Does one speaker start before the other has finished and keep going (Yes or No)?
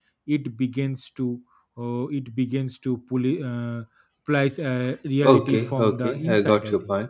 Yes